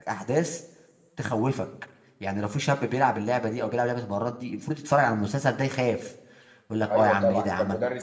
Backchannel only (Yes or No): No